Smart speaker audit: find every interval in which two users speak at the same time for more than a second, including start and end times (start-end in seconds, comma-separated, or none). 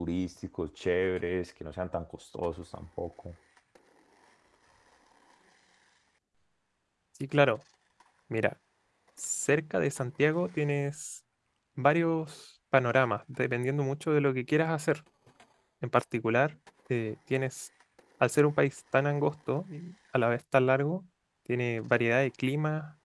none